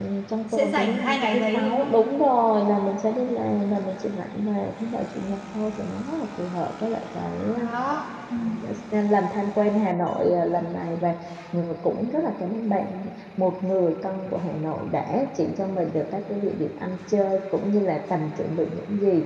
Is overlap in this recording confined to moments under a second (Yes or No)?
No